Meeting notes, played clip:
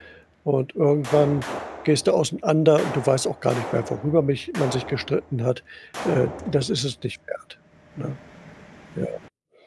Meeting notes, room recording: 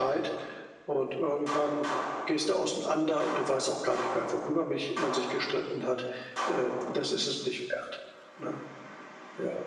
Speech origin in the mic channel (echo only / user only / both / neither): echo only